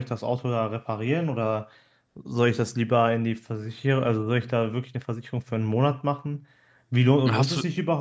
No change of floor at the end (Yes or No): Yes